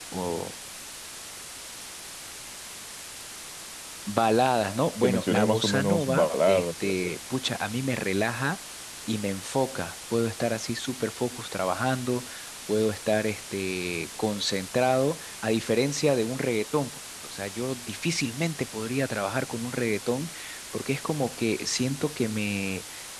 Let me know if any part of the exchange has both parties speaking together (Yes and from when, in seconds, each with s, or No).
Yes, from 5.0 s